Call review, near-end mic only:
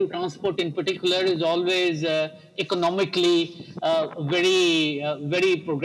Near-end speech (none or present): none